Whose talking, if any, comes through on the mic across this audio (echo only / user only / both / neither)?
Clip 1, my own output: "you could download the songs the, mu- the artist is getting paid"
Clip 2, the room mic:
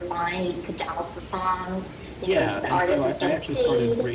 both